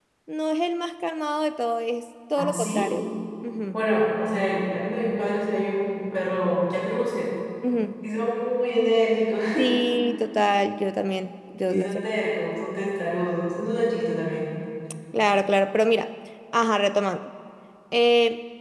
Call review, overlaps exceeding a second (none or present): none